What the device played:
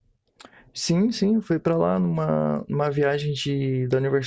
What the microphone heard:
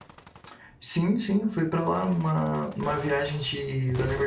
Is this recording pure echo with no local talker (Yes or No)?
Yes